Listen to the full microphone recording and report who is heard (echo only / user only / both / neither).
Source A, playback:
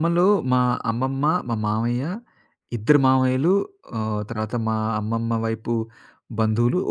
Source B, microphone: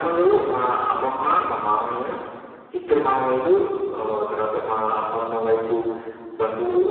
echo only